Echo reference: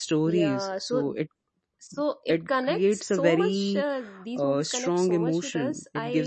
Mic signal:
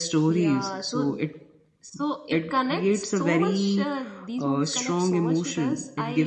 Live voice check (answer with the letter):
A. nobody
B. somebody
A